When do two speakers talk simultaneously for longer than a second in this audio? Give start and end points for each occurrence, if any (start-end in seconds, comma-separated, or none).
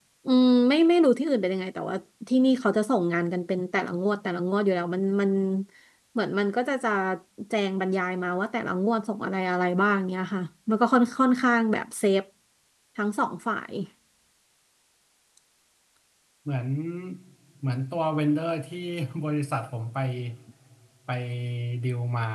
none